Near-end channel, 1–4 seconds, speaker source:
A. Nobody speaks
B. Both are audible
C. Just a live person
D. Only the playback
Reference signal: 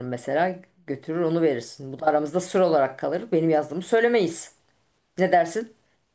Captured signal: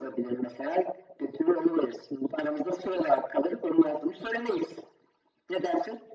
D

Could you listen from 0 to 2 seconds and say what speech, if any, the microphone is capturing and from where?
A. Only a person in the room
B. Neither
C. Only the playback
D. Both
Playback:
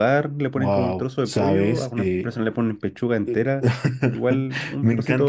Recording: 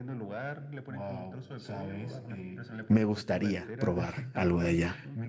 C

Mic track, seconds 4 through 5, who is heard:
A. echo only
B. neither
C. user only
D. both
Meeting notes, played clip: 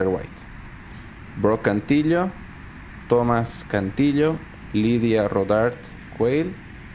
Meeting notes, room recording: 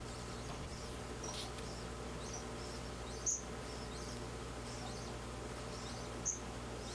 B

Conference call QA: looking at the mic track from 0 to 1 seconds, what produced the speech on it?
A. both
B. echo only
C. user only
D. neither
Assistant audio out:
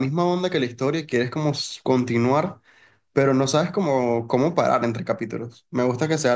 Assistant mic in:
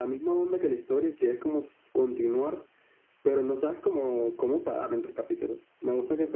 B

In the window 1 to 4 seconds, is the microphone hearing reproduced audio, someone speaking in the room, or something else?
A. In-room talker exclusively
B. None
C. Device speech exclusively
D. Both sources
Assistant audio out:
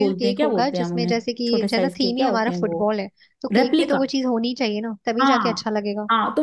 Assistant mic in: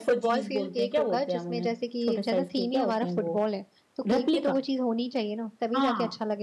C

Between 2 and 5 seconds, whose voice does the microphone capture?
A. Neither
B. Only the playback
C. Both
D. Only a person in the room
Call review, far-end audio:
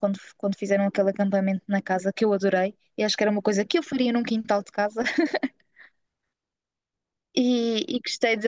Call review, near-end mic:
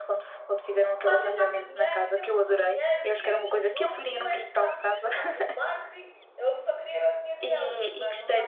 C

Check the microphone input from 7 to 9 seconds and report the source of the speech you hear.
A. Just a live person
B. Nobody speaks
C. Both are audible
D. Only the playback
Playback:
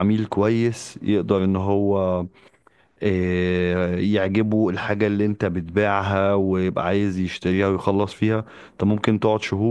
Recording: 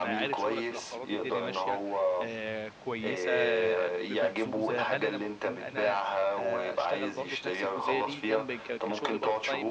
C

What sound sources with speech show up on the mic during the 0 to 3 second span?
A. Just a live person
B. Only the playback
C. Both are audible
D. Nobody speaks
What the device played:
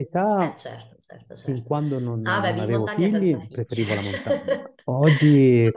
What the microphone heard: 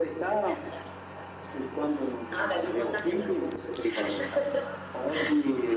B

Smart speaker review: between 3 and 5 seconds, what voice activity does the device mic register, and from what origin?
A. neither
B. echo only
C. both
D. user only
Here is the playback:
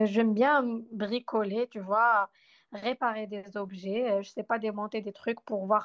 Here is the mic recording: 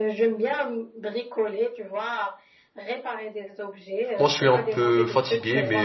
C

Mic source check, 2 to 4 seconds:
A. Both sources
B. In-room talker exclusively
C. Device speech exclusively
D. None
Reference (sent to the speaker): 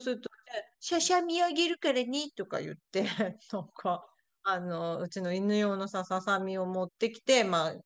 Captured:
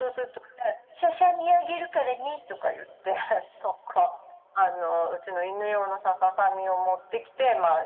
C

